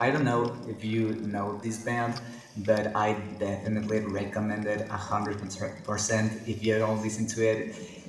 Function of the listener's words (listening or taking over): listening